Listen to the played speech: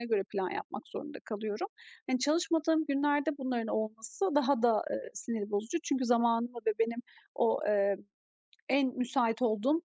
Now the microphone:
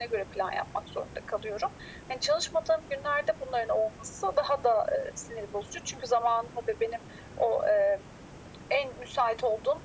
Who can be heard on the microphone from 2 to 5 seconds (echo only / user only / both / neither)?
echo only